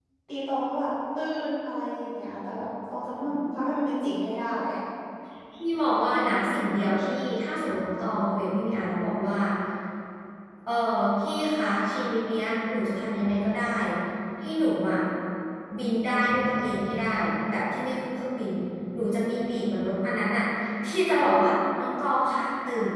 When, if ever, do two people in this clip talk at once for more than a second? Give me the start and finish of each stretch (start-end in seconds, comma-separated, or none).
none